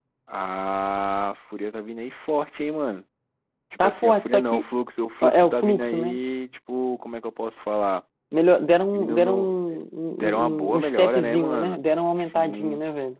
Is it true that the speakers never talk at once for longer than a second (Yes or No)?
No